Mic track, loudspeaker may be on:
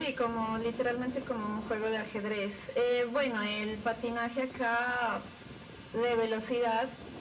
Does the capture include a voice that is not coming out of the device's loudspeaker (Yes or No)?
No